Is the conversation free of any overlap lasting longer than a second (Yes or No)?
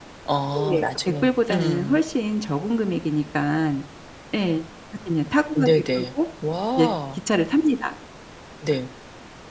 No